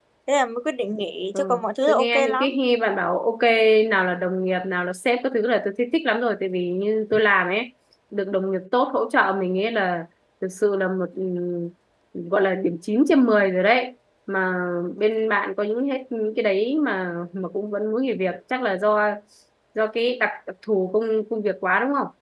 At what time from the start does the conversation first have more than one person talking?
1.3 s

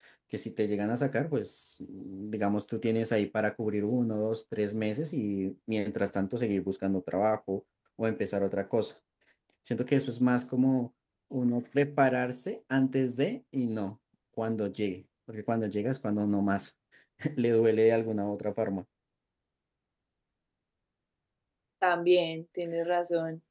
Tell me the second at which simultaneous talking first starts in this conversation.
none

